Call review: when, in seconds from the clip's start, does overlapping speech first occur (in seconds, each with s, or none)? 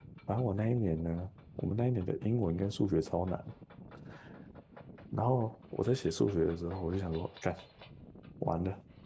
none